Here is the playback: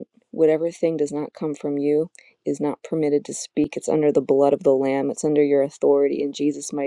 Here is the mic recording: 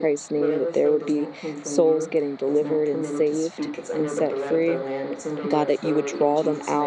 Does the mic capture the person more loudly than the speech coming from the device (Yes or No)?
Yes